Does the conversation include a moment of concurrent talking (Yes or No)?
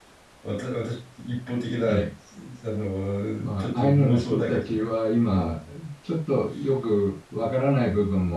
Yes